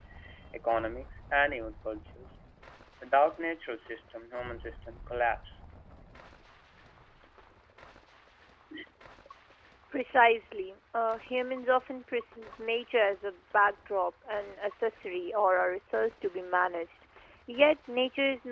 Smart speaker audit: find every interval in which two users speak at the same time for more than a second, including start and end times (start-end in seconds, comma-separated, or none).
none